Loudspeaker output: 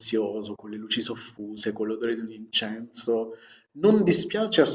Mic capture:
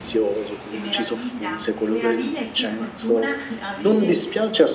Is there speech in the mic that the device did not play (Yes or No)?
Yes